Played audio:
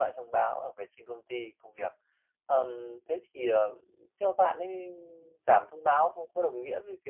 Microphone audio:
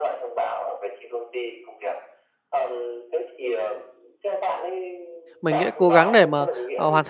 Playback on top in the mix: No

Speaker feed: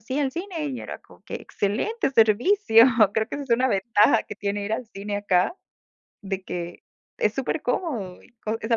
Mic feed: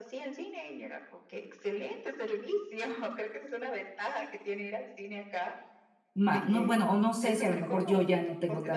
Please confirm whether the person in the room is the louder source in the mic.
Yes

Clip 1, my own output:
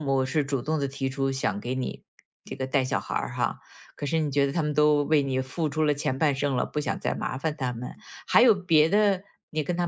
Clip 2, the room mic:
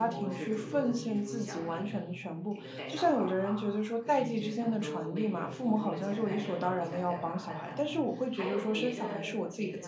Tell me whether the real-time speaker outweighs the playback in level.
Yes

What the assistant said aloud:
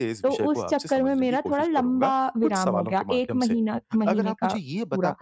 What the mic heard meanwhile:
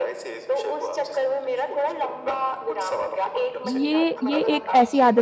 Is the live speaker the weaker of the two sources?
No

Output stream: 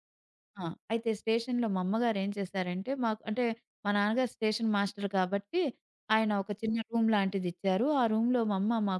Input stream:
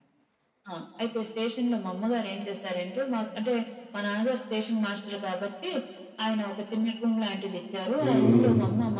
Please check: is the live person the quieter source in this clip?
No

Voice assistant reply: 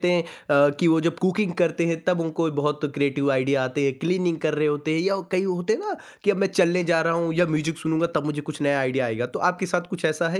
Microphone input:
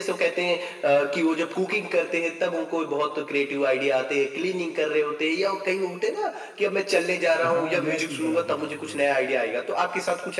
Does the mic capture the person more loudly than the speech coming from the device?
No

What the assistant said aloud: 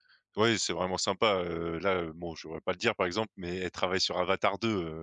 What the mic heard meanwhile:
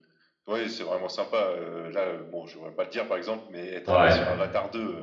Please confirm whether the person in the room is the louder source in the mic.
Yes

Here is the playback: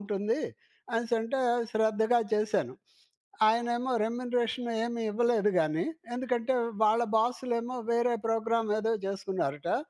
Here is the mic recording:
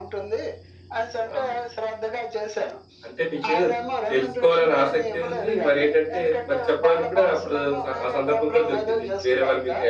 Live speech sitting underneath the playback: No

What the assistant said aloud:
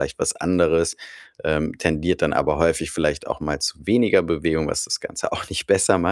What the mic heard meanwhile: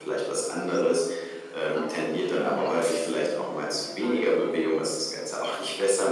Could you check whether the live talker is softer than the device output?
Yes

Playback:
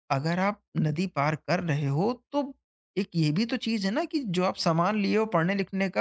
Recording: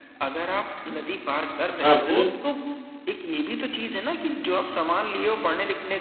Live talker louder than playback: Yes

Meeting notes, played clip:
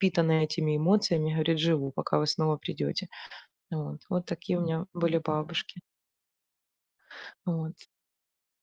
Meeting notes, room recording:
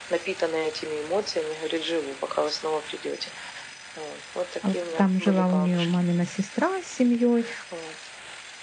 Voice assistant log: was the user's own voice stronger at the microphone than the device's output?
Yes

